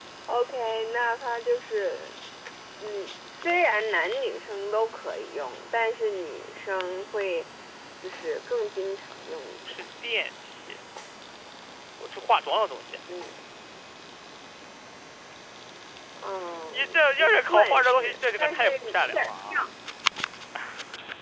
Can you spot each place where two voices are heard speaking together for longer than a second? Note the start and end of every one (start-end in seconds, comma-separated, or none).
16.7-19.3